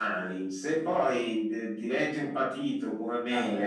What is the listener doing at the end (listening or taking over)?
listening